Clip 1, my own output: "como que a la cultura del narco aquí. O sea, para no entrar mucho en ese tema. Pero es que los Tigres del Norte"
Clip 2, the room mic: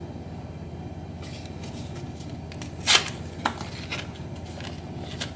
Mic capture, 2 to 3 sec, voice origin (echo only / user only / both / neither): neither